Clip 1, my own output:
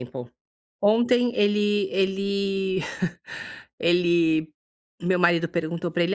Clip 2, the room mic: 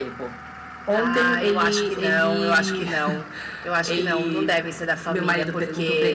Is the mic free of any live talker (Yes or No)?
No